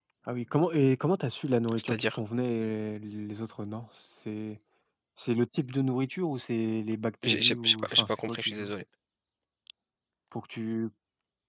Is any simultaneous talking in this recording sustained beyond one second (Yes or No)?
Yes